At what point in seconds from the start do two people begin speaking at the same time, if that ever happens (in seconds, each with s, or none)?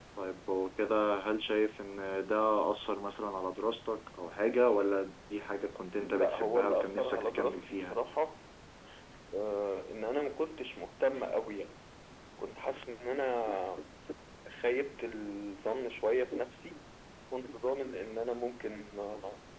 6.0 s